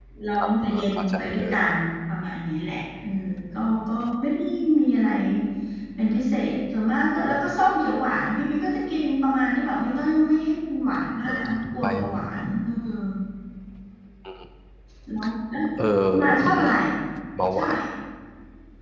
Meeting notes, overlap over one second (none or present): present